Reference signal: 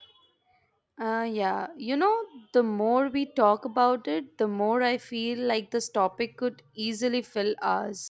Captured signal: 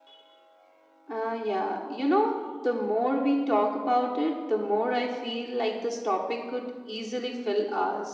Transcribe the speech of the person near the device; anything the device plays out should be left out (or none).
none